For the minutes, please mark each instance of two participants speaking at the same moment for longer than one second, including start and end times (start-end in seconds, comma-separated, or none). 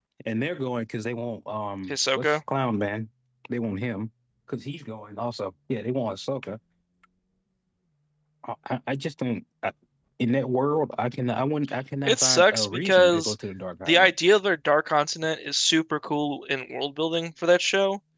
12.0-13.3